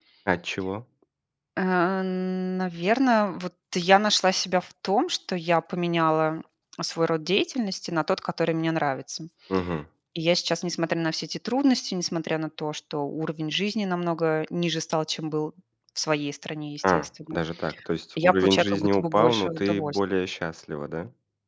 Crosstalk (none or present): present